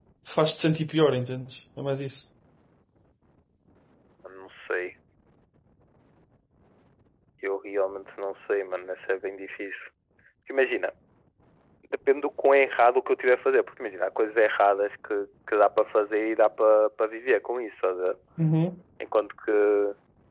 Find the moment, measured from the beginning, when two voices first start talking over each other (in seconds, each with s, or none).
none